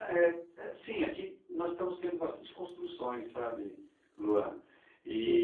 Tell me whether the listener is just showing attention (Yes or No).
Yes